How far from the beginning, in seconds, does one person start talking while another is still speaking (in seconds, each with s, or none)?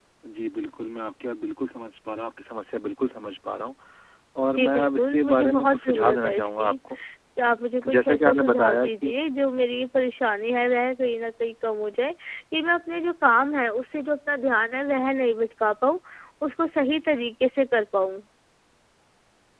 4.5 s